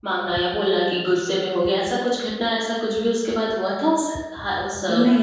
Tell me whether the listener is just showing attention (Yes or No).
No